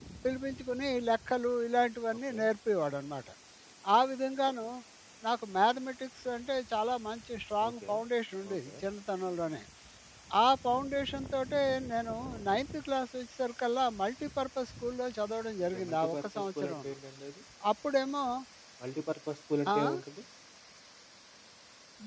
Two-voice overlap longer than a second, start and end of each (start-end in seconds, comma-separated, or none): 15.7-16.9